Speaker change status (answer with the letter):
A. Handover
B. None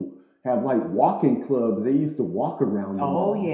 A